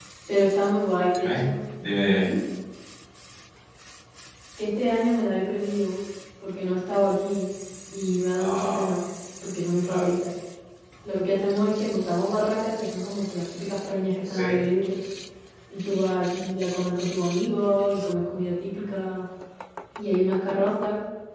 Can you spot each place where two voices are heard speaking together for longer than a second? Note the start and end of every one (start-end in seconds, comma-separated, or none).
none